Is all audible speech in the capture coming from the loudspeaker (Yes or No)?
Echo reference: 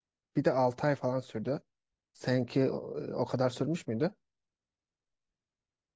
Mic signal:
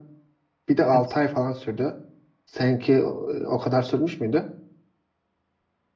No